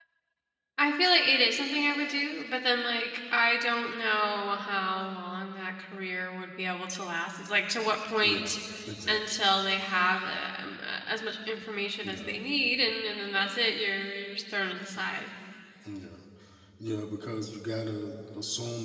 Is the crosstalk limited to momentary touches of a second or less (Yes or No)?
Yes